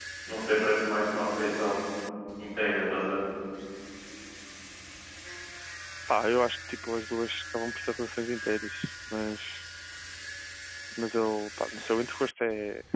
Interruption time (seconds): none

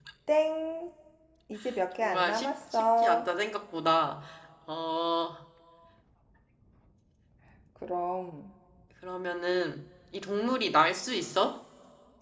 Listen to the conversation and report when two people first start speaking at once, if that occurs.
2.0 s

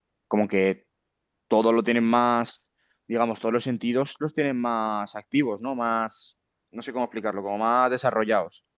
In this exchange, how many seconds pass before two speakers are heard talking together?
none

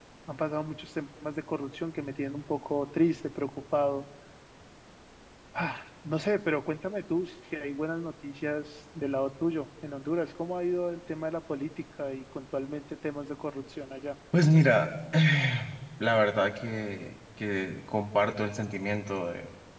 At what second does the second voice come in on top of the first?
none

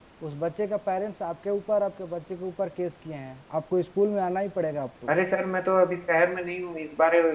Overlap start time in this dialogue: none

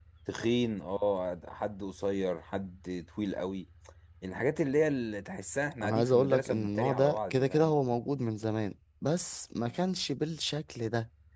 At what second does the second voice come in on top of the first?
5.8 s

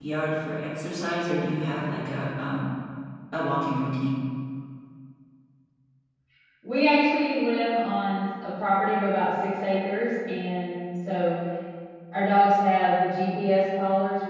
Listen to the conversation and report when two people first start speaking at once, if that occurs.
none

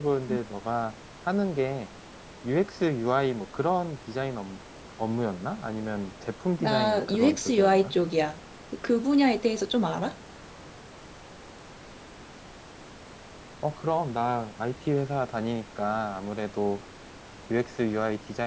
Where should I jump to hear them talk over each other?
6.6 s

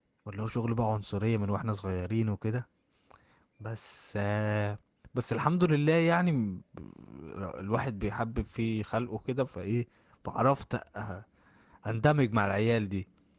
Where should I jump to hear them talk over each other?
none

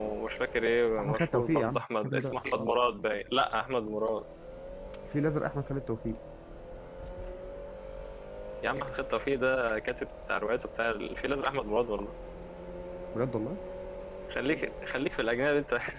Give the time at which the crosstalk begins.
1.0 s

